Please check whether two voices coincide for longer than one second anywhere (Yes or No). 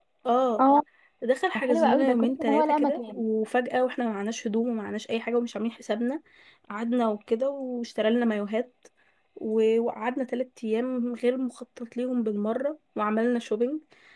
Yes